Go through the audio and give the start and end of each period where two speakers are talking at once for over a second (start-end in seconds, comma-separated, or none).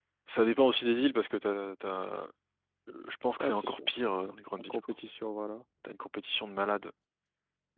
none